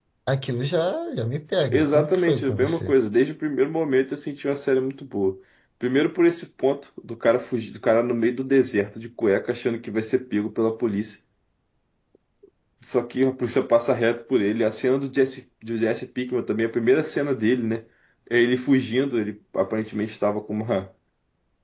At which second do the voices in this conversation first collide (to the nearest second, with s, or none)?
2 s